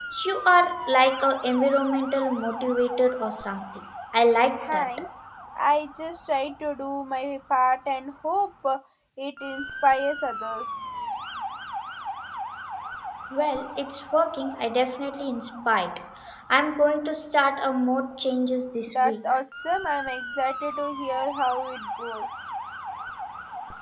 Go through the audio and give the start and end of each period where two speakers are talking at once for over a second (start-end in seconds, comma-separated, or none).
none